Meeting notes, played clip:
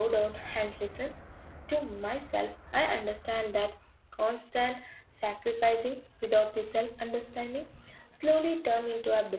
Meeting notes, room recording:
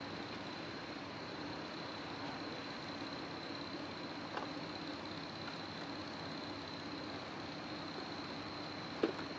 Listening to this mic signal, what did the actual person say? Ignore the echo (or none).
none